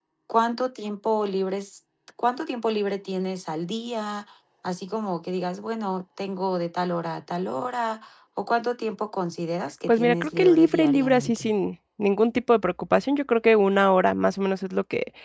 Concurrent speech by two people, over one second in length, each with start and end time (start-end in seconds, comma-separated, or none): 9.9-11.5